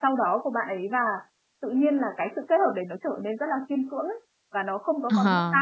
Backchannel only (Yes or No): No